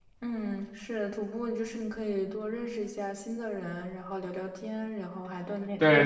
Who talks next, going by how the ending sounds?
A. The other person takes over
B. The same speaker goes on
A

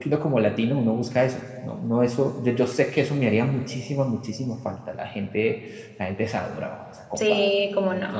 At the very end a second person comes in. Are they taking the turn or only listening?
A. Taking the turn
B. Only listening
A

